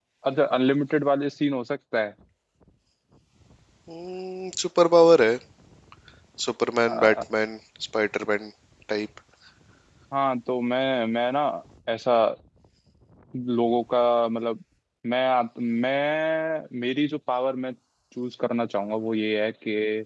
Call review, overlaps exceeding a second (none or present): none